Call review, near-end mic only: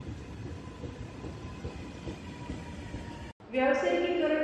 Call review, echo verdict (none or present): none